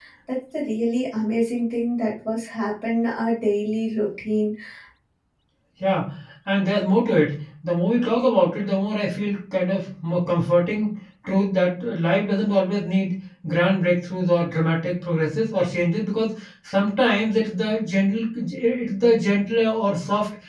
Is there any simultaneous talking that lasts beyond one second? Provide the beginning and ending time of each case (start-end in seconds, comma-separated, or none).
none